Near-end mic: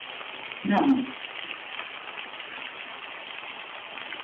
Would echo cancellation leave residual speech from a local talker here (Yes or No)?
Yes